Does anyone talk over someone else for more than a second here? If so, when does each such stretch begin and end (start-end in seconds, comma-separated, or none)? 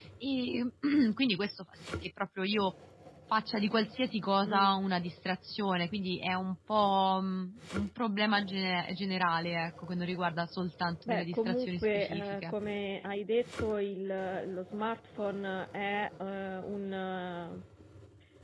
11.1-12.5